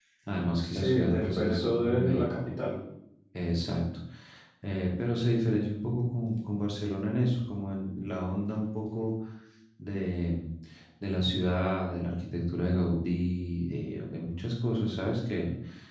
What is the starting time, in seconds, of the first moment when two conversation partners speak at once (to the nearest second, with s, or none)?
1 s